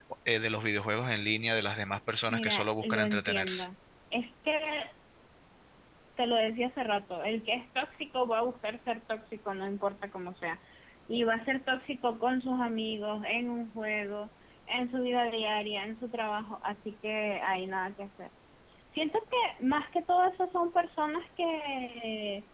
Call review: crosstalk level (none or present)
present